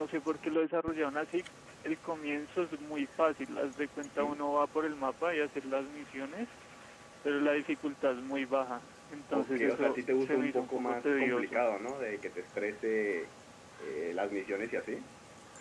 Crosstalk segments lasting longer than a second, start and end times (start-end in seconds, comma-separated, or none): 9.3-11.7